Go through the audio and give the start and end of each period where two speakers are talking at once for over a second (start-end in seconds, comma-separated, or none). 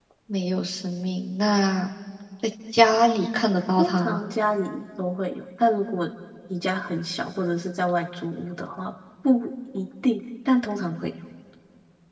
none